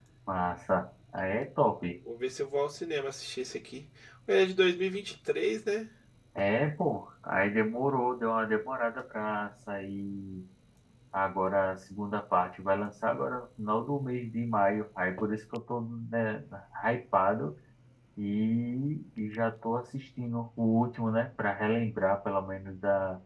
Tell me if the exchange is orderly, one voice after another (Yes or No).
Yes